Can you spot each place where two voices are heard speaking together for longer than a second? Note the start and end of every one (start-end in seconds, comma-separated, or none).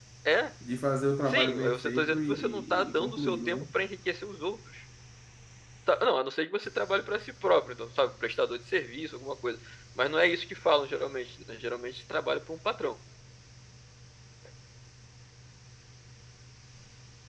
1.3-3.6